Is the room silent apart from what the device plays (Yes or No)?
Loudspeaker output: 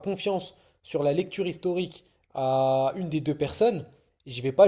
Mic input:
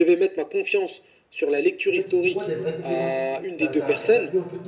No